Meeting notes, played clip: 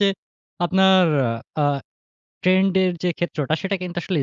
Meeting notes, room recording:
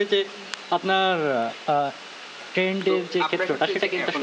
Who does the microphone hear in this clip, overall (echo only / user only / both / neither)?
both